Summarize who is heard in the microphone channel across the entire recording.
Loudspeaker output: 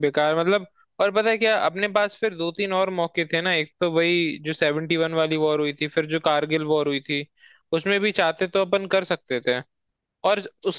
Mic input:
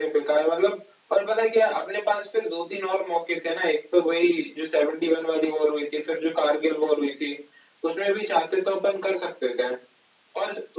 echo only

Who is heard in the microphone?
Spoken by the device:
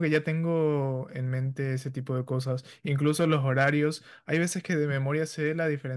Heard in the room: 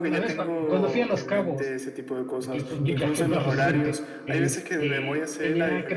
both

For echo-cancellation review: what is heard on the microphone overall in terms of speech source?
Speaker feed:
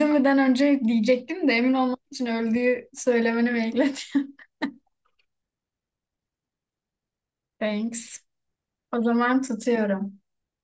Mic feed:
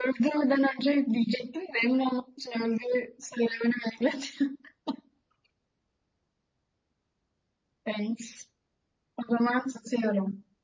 echo only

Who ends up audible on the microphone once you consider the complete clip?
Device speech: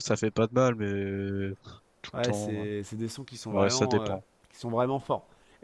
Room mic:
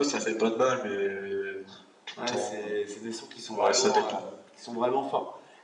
echo only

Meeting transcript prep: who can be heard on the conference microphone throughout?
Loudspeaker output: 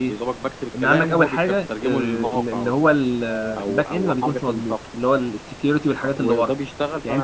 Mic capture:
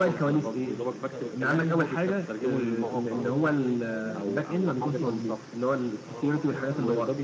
both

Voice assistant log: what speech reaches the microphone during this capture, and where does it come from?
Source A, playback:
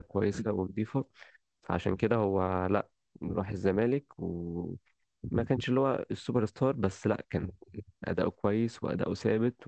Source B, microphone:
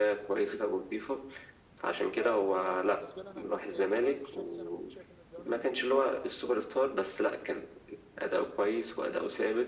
both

